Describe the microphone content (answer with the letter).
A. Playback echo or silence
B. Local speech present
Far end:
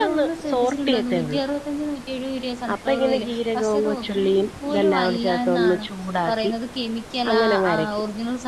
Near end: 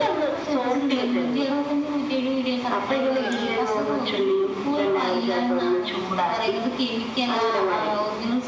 B